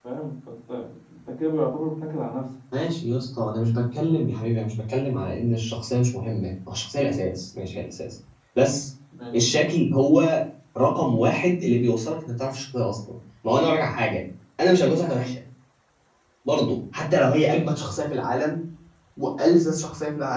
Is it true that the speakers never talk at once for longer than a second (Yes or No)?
Yes